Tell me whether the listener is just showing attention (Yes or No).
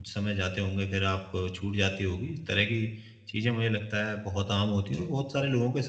Yes